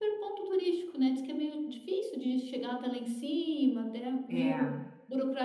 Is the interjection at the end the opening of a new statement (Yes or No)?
No